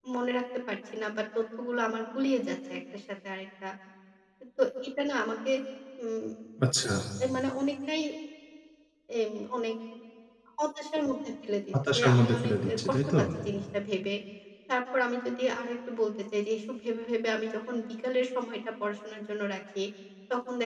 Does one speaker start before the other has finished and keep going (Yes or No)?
Yes